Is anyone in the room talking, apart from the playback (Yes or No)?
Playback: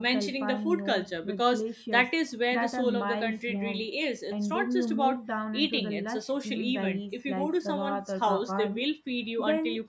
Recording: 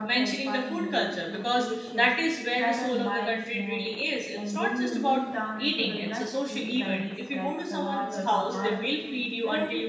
Yes